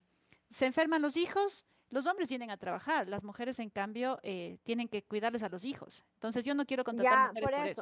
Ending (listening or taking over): taking over